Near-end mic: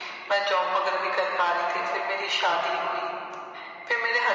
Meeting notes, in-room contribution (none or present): none